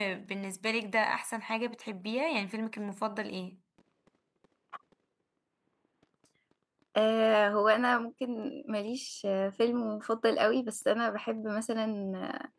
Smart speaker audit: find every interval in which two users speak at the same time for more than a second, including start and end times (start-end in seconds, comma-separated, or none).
none